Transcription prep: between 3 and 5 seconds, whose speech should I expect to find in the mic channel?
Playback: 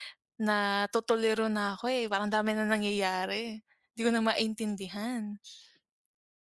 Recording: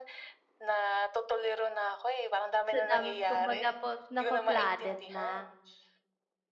both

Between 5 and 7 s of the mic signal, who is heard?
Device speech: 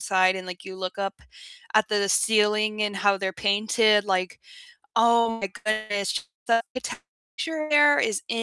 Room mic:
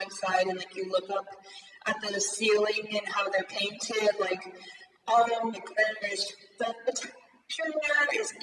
echo only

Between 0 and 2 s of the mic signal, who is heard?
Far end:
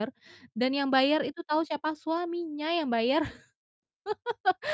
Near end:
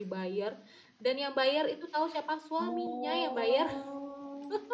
echo only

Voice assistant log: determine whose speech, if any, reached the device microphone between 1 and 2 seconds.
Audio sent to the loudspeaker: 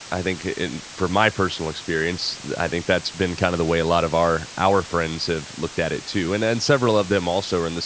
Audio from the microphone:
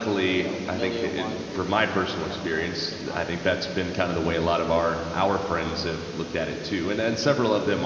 both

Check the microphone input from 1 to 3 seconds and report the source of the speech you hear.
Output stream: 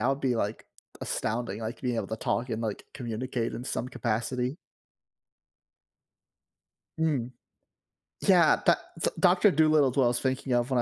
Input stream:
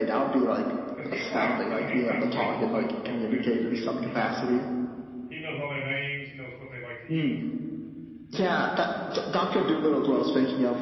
both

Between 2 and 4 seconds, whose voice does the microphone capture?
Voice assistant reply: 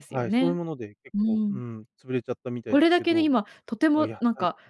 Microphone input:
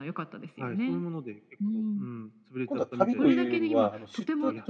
both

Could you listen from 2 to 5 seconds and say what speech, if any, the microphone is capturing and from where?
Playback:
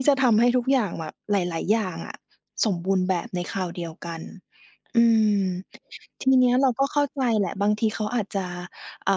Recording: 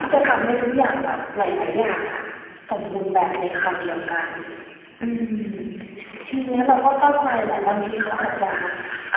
echo only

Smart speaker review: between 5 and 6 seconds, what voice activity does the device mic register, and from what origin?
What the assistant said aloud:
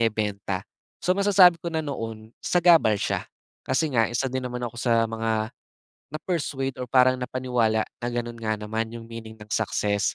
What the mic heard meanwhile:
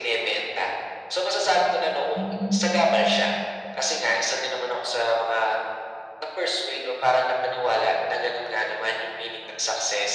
echo only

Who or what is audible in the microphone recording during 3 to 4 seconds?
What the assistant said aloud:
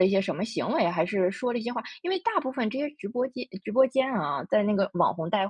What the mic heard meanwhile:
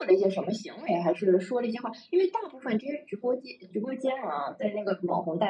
echo only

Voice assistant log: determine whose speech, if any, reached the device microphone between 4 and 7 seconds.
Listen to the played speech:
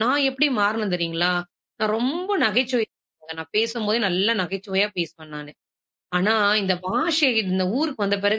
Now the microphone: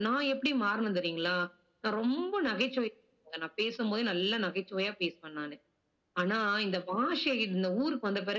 echo only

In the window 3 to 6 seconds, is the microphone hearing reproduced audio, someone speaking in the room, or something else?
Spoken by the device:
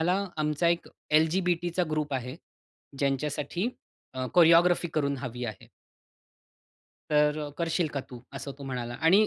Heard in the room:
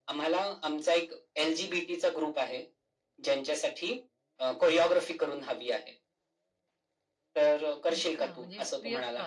echo only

